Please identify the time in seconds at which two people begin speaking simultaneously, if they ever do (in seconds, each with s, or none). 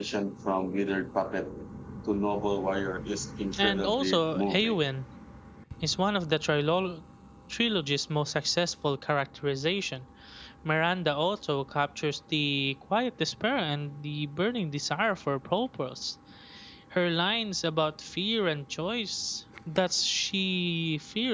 3.6 s